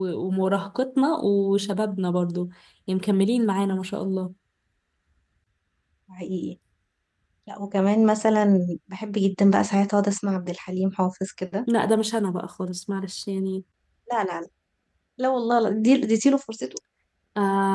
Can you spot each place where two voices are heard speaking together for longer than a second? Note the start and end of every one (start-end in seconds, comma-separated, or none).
none